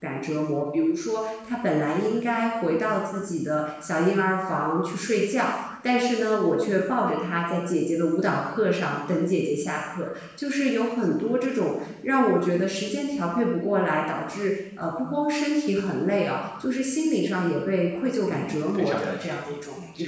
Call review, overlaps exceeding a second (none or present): present